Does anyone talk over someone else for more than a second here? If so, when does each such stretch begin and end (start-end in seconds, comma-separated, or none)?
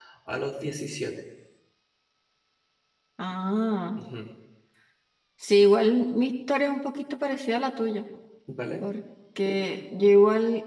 none